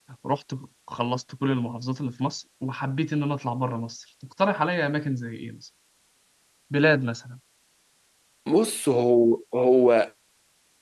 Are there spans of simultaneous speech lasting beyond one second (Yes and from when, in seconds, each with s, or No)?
No